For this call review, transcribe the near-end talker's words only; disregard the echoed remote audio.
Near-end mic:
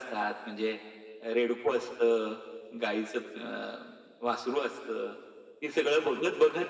none

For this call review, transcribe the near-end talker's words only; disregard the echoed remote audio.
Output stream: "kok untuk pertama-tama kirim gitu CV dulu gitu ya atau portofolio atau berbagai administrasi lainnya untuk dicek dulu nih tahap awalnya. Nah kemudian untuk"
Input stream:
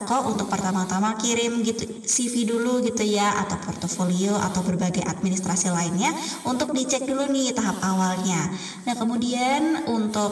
none

